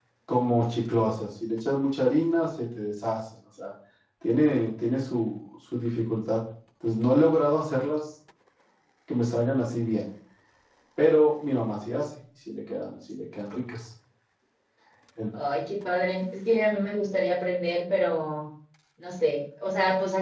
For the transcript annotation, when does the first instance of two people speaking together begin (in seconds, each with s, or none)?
none